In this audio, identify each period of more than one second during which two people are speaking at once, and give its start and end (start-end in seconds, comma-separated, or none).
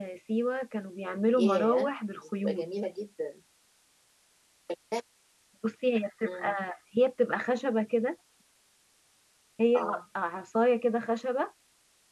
1.4-2.6